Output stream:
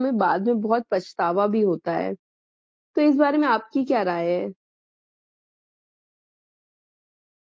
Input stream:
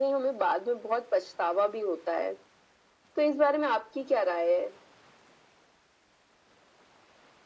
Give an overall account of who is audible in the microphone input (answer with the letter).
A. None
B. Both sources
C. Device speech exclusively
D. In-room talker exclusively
C